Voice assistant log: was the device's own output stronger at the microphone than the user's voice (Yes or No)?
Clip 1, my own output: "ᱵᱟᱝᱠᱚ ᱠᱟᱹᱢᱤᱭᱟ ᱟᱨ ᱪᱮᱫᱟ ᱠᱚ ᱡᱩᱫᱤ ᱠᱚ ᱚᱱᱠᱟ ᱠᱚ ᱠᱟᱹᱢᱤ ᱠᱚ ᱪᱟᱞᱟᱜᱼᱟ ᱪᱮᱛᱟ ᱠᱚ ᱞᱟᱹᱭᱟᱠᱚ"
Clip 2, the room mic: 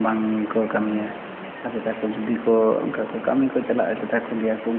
Yes